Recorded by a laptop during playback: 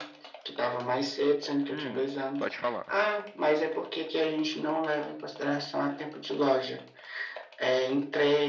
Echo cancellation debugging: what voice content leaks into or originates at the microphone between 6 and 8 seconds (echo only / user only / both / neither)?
echo only